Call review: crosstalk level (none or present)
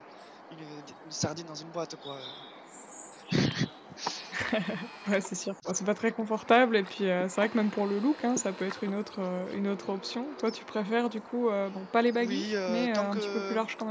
present